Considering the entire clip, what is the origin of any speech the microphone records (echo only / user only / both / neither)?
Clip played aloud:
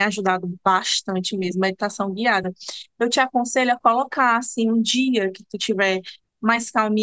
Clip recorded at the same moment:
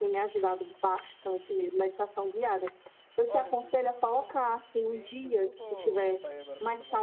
both